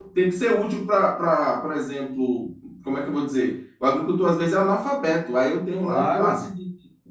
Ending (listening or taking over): listening